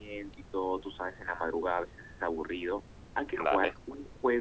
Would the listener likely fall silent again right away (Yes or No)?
Yes